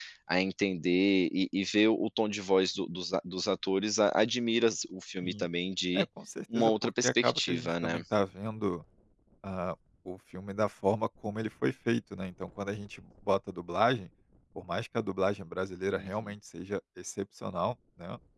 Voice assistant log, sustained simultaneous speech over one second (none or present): present